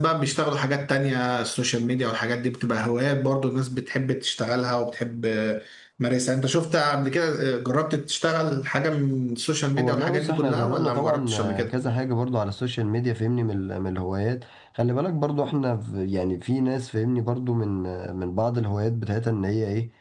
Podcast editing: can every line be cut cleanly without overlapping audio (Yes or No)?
No